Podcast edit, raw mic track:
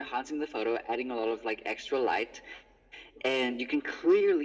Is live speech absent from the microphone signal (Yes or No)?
Yes